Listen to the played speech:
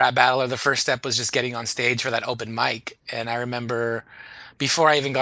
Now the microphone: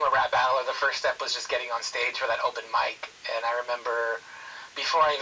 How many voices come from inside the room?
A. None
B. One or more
A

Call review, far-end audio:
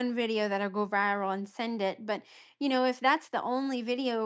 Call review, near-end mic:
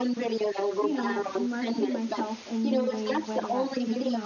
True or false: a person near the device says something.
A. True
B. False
A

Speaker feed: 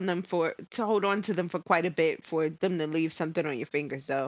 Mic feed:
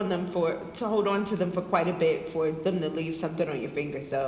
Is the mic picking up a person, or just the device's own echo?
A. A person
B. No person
B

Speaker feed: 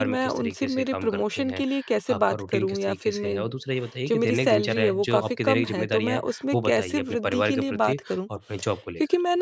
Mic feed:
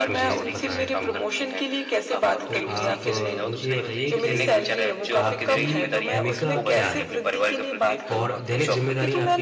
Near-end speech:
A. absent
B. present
B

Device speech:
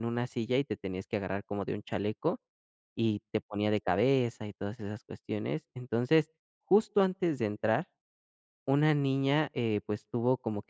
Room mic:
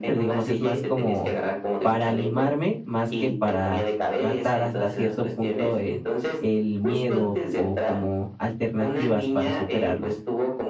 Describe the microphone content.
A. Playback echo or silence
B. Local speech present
B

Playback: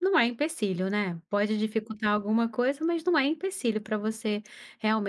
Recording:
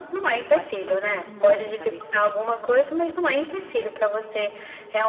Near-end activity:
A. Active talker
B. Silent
A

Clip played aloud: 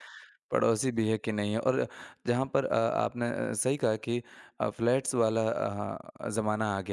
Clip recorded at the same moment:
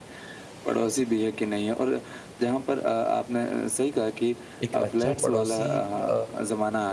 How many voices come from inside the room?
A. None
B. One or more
B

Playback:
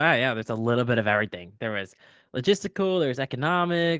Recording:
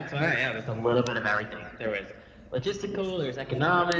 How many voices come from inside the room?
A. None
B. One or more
A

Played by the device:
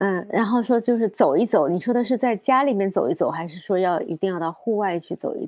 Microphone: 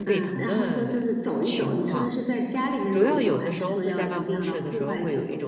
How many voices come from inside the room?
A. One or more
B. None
A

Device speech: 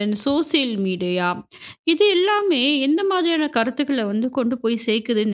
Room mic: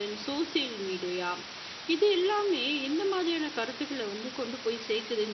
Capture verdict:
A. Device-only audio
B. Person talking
A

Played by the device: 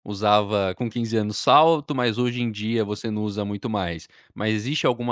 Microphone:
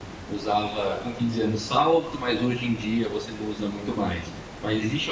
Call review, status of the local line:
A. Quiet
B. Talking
A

